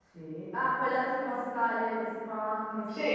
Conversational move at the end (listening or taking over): taking over